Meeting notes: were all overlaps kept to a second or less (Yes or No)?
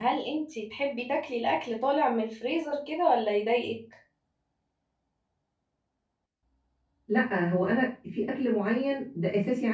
Yes